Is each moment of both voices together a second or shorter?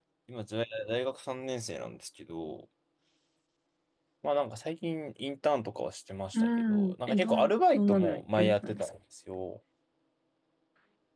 No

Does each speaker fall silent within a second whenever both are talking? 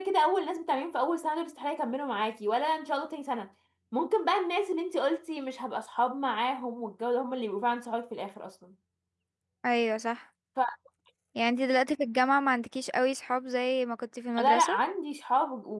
Yes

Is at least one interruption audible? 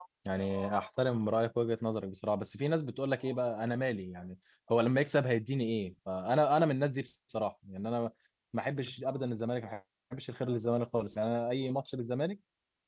No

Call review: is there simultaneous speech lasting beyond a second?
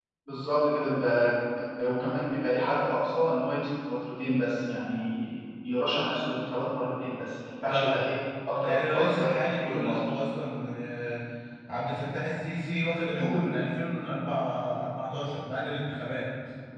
Yes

